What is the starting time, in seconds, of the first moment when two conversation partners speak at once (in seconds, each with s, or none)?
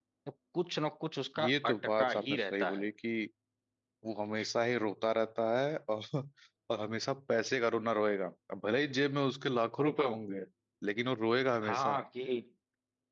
1.4 s